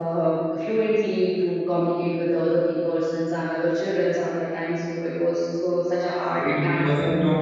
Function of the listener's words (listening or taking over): taking over